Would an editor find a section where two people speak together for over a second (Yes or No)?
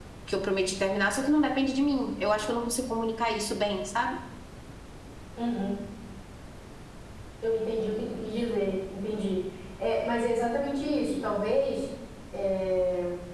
No